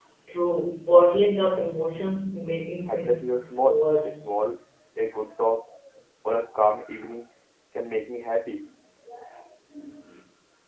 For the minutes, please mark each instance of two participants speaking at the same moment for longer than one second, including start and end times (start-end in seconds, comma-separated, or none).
2.9-4.2